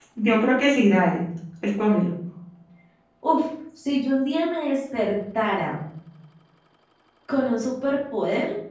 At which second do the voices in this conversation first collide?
none

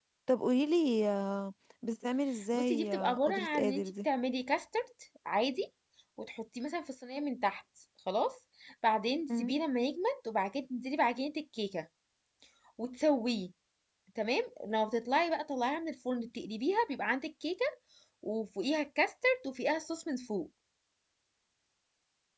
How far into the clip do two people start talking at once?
2.5 s

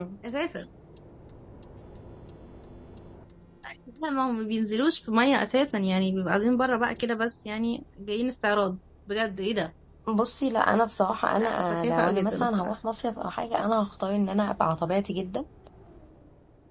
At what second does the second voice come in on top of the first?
11.4 s

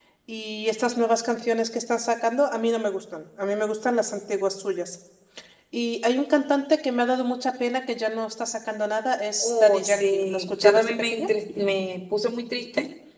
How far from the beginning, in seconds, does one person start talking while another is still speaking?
9.4 s

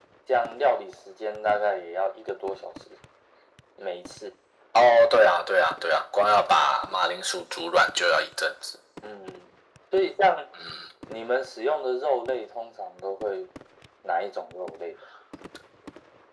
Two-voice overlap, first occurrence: none

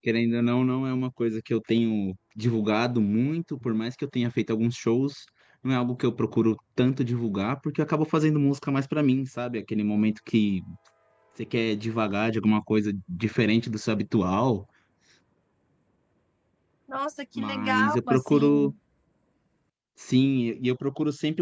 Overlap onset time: 17.4 s

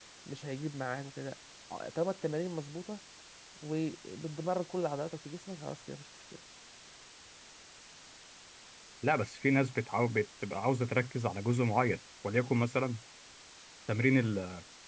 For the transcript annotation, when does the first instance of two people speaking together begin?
none

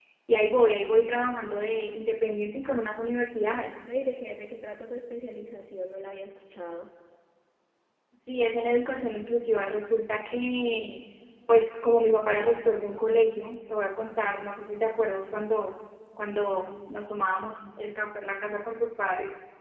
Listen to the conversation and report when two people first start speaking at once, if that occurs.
none

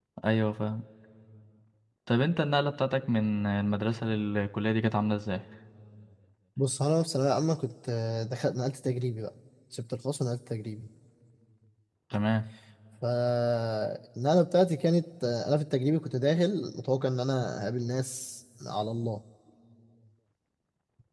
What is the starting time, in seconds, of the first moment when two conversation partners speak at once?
none

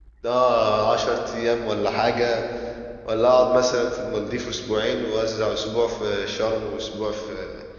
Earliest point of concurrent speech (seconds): none

